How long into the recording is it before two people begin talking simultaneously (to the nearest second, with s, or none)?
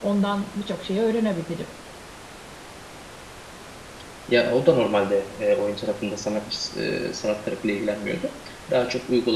none